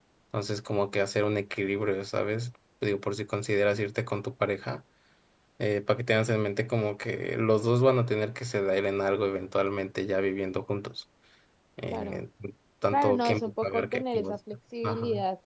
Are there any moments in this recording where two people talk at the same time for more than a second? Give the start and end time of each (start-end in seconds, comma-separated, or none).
12.9-14.4